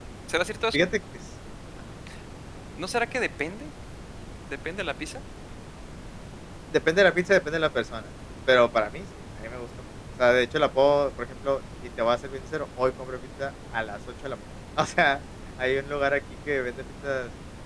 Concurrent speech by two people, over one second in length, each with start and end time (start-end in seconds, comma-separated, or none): none